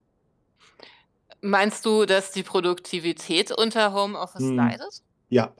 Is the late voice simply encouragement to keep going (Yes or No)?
No